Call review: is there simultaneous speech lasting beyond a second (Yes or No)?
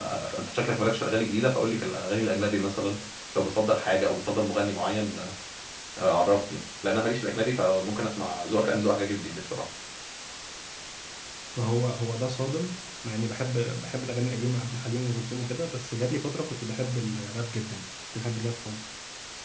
No